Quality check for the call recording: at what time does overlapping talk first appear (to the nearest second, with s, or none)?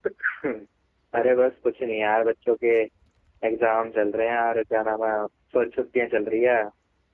none